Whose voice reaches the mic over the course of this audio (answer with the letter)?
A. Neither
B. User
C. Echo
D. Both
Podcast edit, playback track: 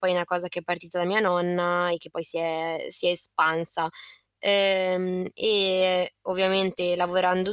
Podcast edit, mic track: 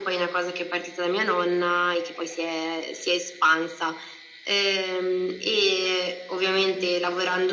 C